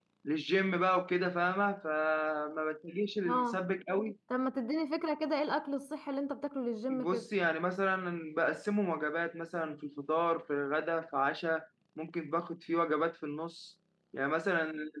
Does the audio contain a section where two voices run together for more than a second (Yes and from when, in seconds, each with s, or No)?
No